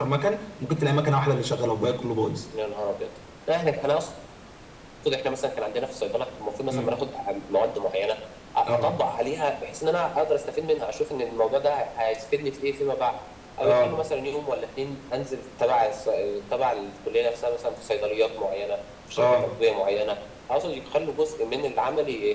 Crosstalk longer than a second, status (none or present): none